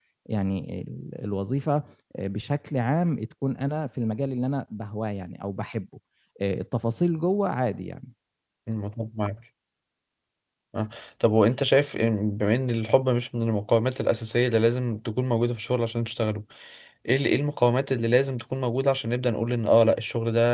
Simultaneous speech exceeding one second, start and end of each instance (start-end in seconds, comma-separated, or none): none